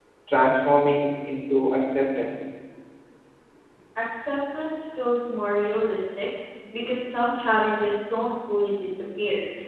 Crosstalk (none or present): none